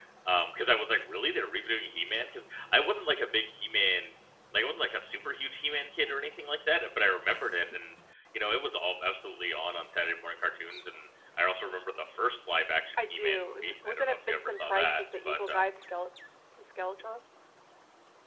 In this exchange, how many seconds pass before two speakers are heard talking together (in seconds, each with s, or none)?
13.0 s